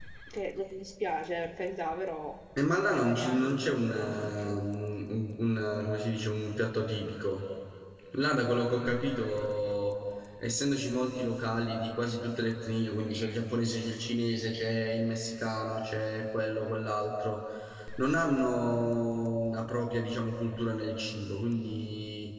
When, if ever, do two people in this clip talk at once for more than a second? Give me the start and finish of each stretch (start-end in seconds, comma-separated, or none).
2.7-4.7